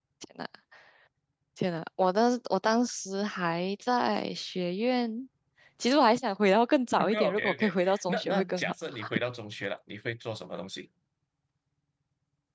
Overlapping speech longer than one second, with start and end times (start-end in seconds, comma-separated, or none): 7.0-8.7